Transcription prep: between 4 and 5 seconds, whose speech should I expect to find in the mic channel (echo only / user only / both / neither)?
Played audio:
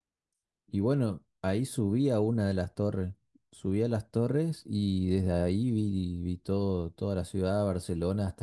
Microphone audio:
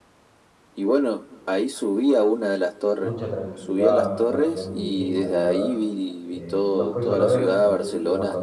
both